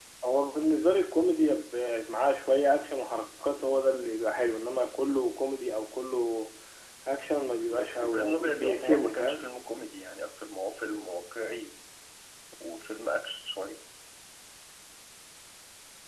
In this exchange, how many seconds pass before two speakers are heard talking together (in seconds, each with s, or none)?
7.8 s